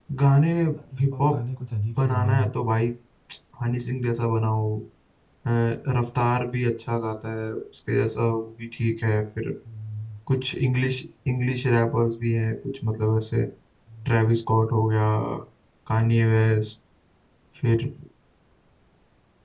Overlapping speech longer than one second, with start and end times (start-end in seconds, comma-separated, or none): none